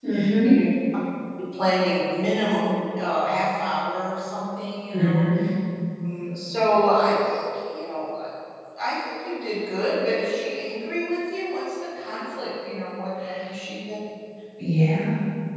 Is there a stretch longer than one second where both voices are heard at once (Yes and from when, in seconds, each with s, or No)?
No